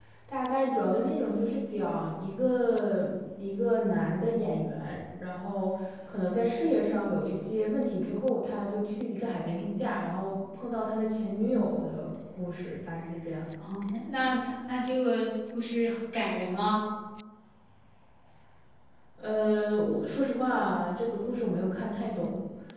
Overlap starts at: none

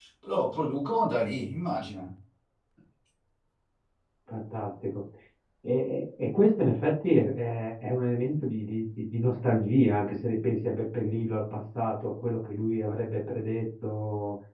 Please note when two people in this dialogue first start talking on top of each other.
none

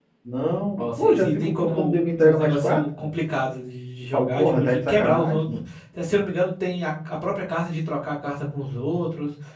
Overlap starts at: 0.8 s

